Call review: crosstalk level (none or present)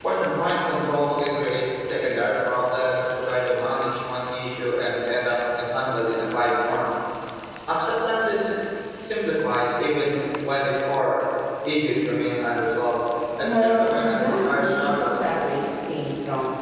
present